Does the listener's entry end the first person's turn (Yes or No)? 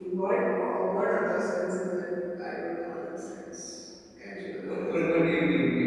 Yes